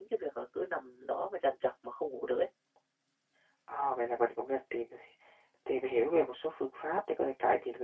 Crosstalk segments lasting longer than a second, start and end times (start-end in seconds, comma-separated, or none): none